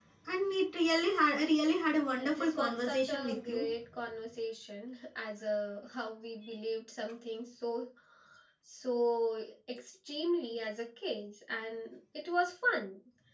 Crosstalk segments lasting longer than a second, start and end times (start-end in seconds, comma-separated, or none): 2.1-3.6